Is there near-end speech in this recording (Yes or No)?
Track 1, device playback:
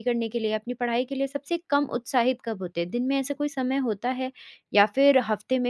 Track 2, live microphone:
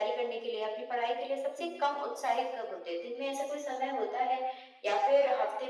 Yes